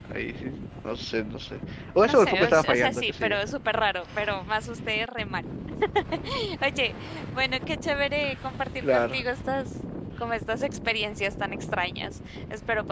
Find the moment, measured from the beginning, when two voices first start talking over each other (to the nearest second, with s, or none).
2 s